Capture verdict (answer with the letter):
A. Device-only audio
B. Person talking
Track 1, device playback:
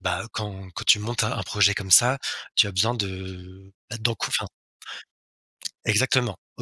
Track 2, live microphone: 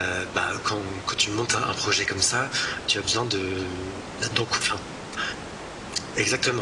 A